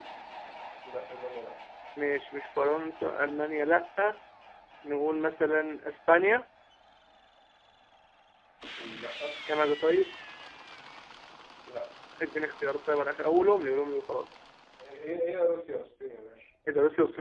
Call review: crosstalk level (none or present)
none